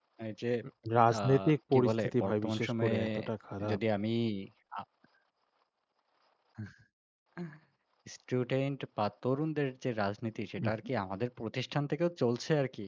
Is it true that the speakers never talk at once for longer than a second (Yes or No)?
No